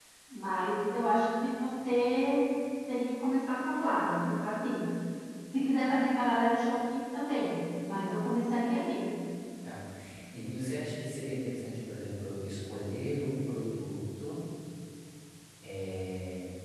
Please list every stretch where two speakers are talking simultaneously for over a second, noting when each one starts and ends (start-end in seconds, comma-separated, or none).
none